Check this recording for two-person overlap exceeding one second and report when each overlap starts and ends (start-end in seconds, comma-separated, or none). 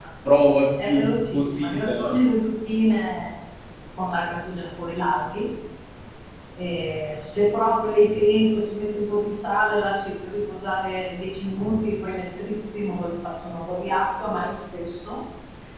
0.8-2.2